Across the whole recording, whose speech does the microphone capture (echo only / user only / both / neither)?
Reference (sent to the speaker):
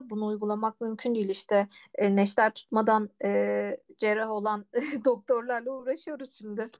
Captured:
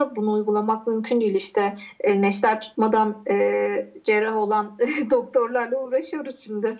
echo only